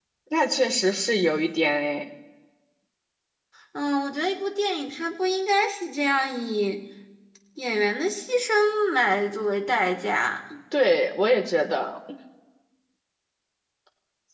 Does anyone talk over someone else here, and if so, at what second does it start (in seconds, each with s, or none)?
none